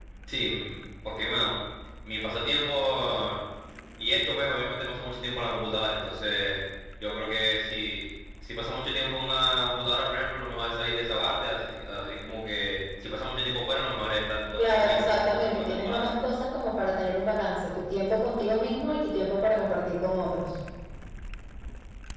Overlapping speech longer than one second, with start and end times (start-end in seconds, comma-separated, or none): 14.6-16.1